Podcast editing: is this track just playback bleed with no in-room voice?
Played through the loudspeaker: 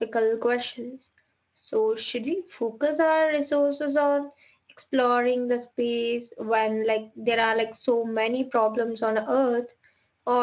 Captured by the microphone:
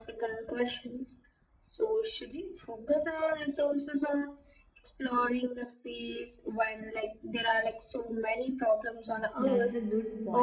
No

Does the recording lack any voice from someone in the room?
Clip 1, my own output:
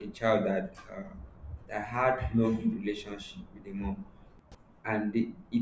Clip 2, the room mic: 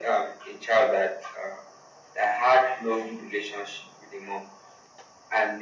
Yes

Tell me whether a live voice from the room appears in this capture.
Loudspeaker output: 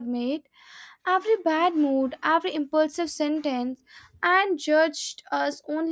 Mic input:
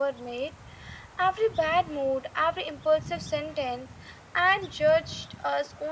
No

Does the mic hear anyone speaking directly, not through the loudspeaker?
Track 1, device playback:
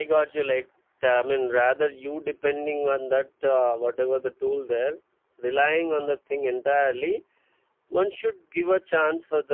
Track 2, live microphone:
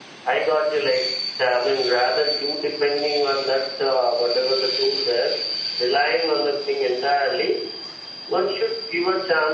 No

